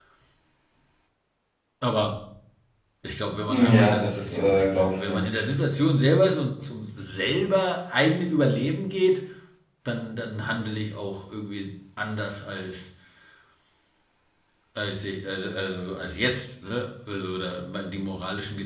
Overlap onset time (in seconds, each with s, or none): 3.5 s